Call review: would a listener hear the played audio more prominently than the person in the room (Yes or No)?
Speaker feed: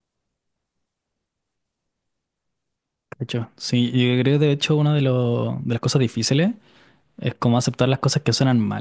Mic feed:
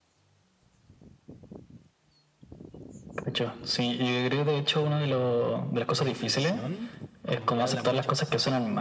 Yes